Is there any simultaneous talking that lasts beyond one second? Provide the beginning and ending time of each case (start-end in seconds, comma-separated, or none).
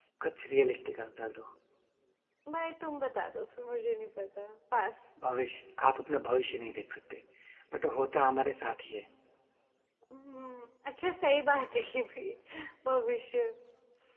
none